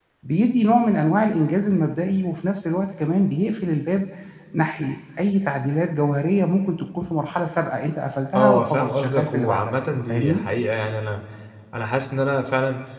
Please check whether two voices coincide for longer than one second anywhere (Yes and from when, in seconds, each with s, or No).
Yes, from 8.3 s